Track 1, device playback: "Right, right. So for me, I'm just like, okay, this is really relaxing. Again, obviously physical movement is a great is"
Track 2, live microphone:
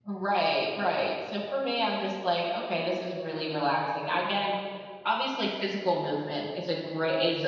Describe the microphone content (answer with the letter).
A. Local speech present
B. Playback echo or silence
B